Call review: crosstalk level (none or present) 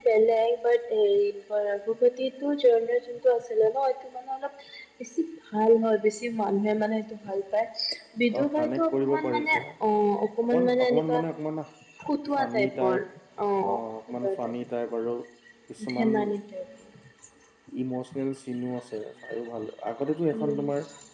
present